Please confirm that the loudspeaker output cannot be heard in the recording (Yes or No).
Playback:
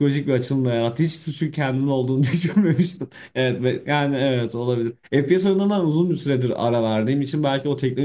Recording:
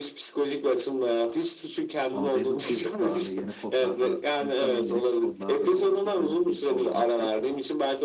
No